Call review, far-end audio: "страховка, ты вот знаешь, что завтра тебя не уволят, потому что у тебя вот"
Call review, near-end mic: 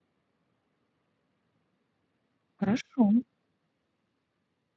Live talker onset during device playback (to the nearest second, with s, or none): 3 s